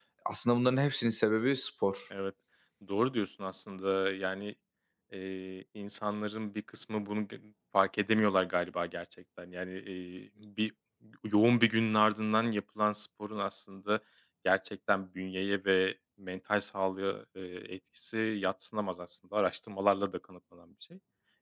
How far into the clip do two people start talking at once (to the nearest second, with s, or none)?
none